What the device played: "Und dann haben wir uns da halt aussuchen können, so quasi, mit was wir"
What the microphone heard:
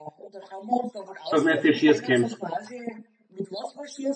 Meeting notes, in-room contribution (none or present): present